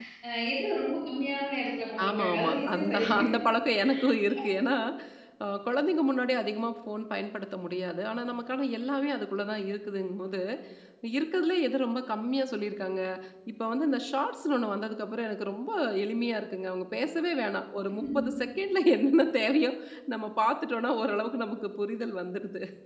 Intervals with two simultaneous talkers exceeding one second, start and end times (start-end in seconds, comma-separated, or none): 2.1-3.3